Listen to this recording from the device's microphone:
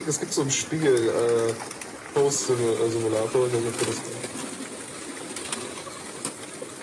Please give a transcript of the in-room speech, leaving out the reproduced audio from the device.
none

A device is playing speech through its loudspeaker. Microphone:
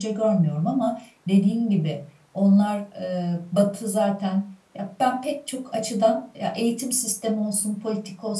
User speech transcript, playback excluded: none

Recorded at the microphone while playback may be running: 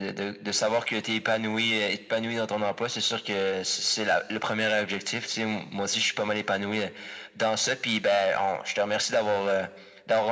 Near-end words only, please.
none

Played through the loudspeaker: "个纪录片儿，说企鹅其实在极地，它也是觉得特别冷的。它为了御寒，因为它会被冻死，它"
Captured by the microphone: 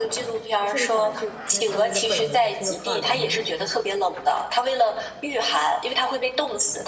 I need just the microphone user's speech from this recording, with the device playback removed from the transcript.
我现在想来是因为他们的本能，是因为怕冷，原来是这样。

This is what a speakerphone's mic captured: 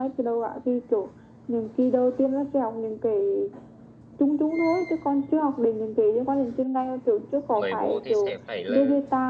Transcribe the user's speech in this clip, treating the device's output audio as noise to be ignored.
mới vô thì sẽ phải là

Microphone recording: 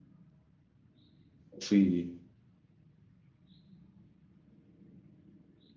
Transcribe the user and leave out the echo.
وفي

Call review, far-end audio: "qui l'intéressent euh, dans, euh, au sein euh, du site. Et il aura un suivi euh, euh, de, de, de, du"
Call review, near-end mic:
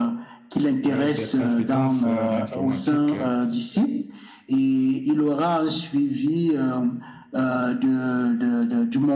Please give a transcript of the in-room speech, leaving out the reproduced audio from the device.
euh, des compétences euh, en informatique, euh,

